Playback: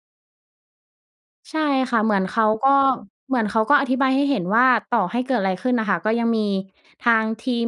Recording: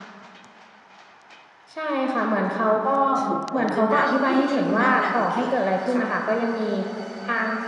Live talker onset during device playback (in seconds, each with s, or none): 3.2 s